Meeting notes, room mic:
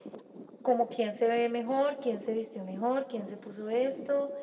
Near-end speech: none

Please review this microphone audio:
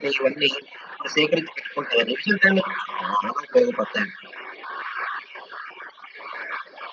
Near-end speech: none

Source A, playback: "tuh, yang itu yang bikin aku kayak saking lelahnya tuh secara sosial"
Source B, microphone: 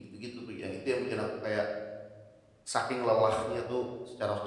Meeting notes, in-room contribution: none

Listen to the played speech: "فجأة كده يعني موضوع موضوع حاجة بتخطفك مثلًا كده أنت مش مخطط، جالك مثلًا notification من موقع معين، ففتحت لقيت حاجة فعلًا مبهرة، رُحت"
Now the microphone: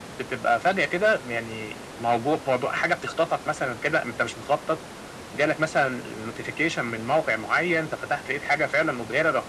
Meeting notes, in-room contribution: none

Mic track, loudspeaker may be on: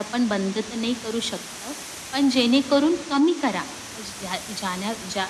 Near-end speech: none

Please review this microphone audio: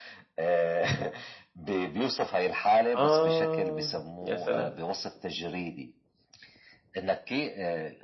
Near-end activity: present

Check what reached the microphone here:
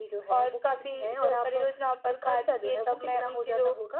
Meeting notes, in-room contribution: none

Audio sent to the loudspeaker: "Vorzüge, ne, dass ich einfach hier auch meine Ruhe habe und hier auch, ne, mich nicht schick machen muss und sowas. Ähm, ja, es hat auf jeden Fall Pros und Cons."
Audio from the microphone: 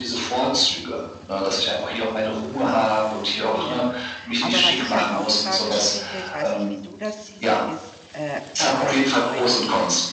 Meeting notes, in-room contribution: present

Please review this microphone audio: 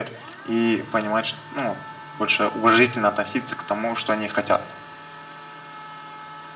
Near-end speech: none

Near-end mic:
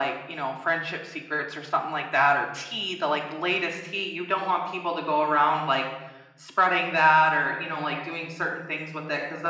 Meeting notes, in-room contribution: none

